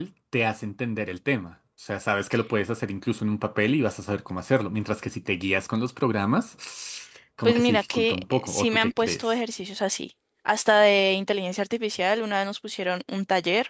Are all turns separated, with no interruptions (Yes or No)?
No